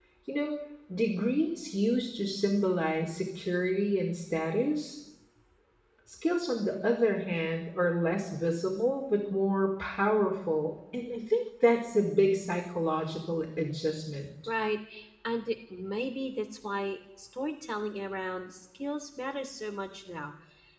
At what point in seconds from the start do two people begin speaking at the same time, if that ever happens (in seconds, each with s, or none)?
none